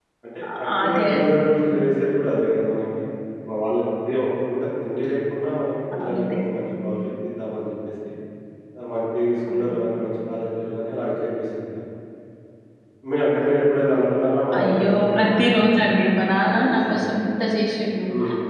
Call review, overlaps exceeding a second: present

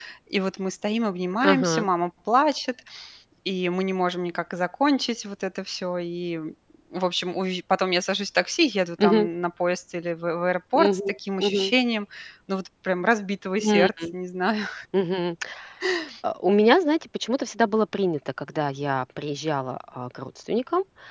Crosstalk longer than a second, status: none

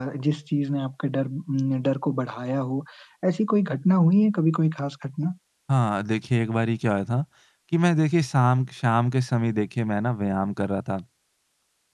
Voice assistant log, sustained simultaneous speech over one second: none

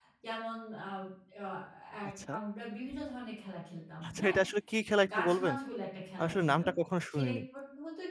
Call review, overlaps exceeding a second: none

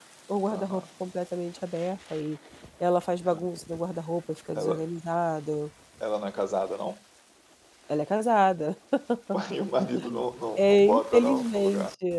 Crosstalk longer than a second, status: present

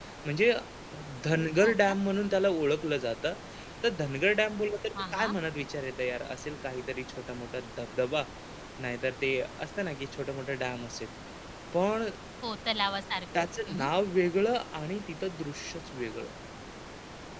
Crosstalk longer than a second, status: none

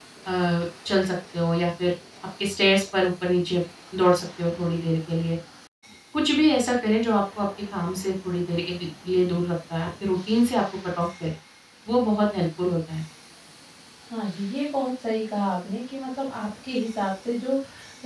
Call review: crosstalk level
none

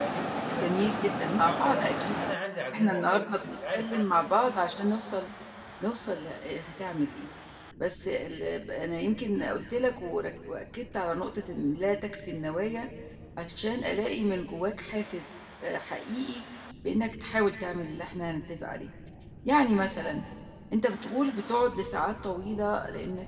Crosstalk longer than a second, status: present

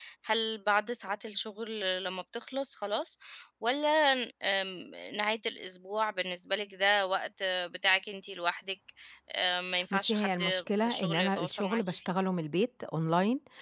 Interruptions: present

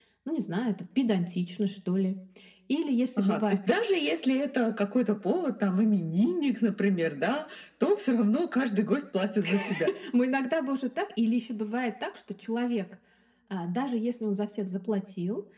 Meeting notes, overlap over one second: none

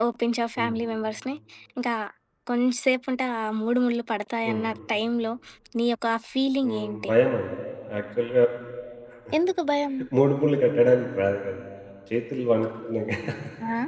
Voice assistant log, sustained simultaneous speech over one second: none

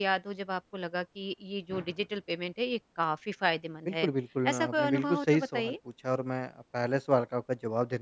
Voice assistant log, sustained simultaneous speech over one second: present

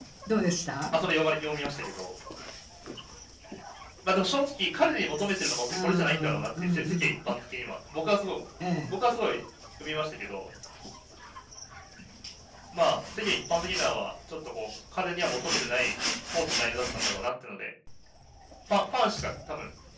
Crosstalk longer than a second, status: present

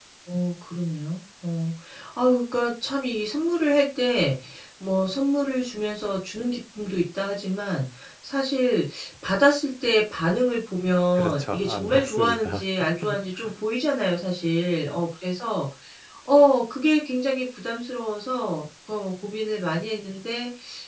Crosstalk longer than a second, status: present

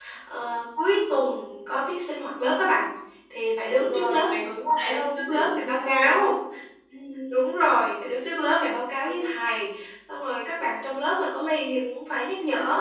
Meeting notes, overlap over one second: present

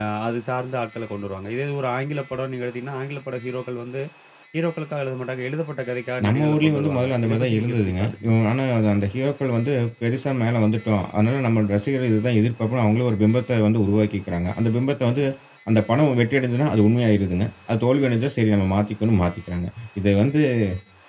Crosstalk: present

